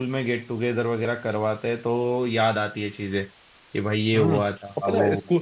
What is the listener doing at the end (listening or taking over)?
taking over